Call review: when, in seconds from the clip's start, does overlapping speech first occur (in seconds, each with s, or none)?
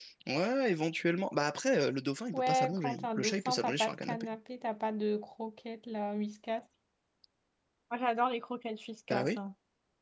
2.3 s